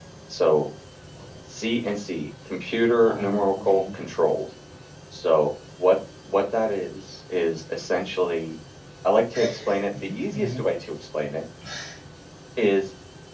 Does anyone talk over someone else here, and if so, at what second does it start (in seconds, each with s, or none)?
3.0 s